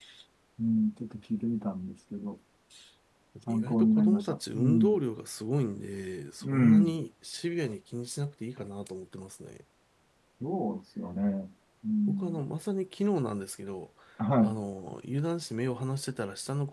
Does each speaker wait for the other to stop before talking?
No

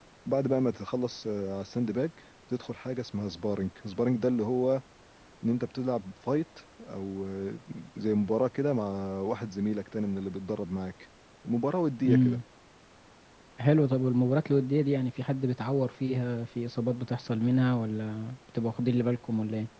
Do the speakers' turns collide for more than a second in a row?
No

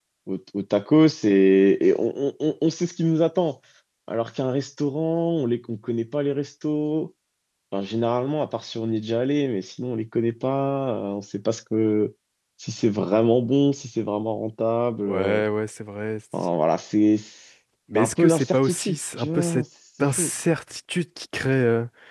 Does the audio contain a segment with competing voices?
Yes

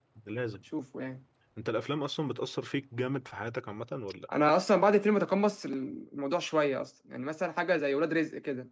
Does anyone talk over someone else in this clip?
No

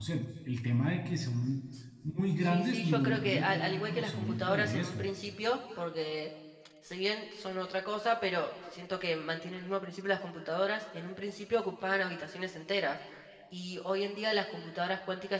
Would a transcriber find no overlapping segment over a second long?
No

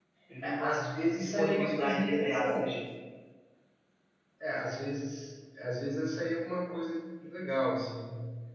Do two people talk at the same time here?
Yes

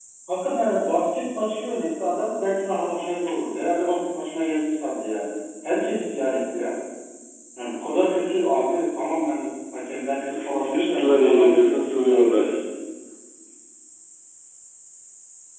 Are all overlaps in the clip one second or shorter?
No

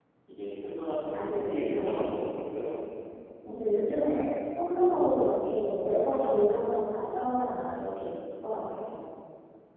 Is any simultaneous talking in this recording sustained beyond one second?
Yes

